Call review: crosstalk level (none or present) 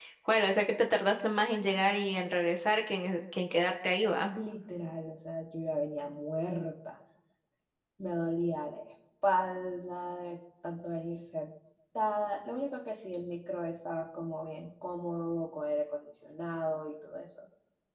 none